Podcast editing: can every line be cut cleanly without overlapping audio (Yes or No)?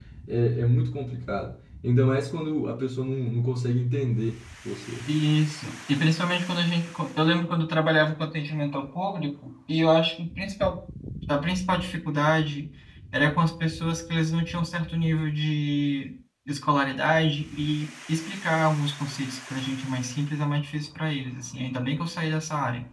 Yes